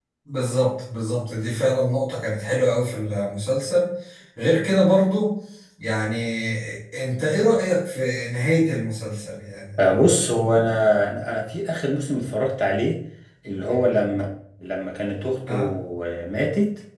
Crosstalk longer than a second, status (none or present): none